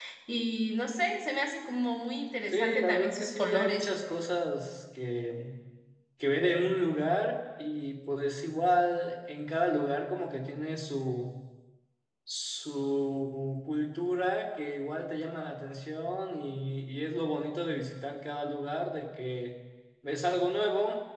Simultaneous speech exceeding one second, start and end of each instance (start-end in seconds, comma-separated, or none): 2.5-3.9